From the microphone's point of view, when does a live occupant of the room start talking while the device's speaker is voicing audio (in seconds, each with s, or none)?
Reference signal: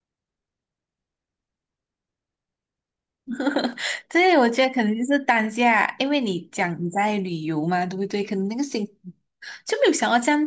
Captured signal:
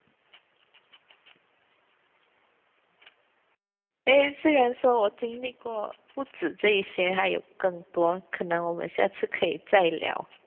4.0 s